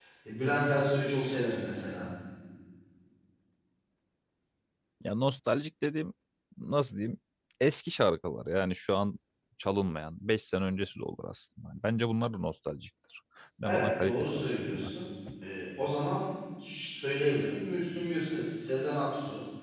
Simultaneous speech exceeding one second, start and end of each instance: 13.6-14.9

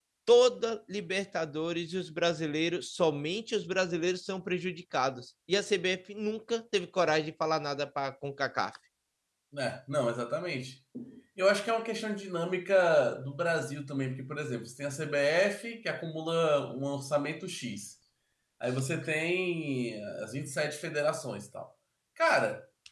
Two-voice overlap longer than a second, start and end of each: none

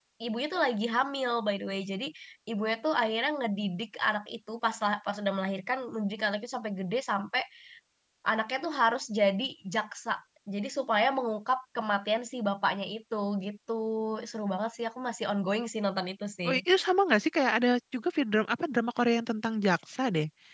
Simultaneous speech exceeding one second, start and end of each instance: none

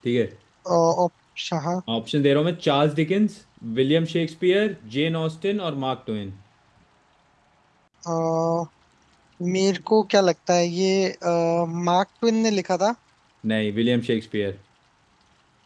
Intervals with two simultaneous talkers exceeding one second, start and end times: none

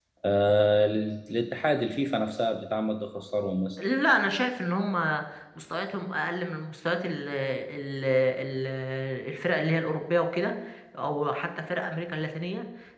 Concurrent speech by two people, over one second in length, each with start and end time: none

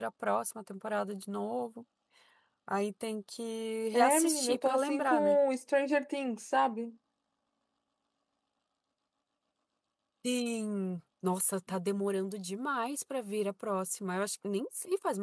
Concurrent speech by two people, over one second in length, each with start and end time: 3.9-5.4

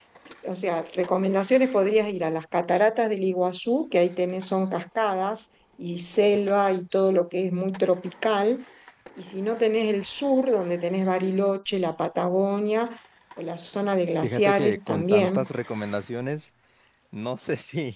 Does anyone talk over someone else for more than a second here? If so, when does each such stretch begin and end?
14.2-15.5

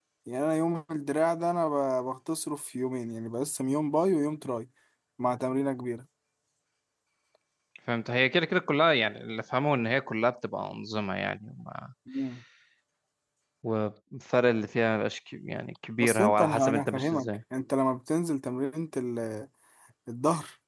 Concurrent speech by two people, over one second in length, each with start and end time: 16.0-17.4

